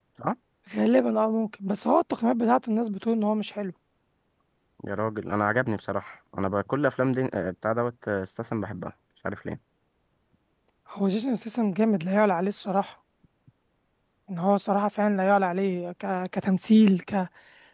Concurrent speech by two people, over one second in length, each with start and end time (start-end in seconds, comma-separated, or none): none